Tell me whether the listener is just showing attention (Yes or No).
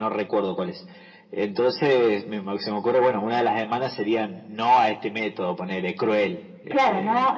No